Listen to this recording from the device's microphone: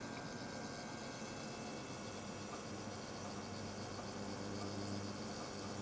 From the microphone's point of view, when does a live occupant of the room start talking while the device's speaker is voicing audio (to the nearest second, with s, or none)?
none